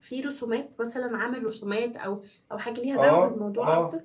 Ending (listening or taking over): taking over